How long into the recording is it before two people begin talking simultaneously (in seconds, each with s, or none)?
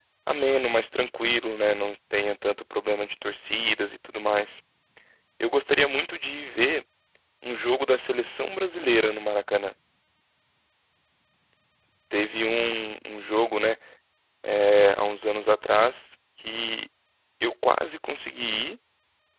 none